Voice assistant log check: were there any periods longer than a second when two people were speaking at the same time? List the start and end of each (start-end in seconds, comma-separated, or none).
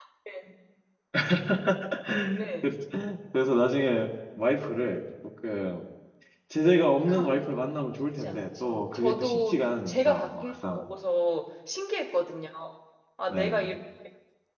8.2-10.9